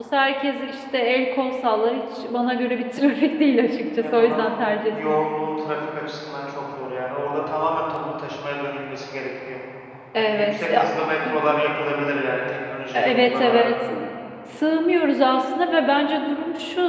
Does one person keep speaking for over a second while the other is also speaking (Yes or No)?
Yes